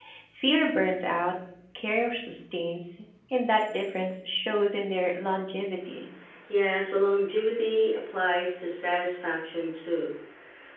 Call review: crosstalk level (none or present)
none